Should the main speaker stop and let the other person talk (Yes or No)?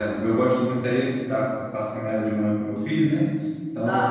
No